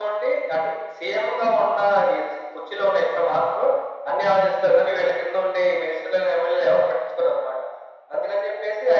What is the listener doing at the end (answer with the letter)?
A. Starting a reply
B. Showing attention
B